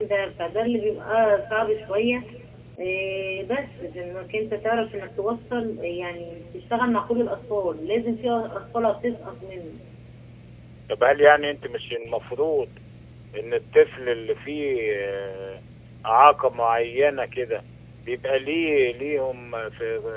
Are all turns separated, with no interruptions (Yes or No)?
Yes